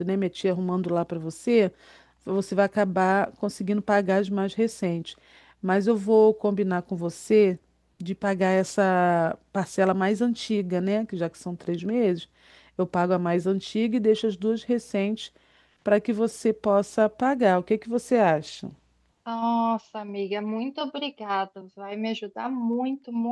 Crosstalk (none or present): none